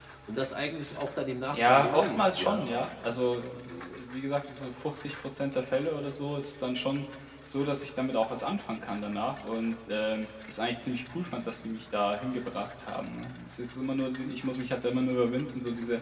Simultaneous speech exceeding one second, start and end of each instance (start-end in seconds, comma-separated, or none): 1.5-2.7